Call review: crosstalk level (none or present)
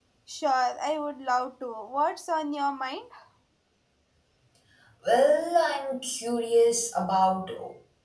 none